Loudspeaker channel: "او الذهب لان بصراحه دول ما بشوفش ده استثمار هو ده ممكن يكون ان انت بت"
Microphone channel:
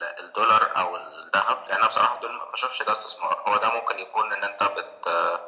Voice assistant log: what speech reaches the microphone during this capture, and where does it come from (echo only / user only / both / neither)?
echo only